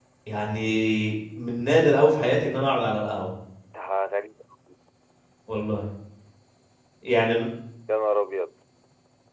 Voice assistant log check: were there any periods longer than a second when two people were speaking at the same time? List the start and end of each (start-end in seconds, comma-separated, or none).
none